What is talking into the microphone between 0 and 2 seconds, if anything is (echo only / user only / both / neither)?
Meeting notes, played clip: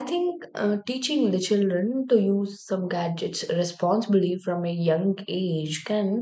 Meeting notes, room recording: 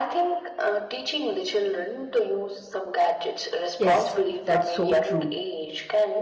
echo only